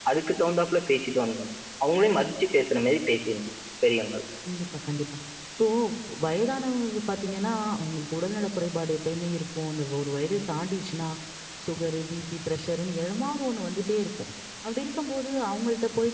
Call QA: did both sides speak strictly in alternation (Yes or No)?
Yes